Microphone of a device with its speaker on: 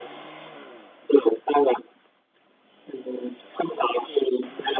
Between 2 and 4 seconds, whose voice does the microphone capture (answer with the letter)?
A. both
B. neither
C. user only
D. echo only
D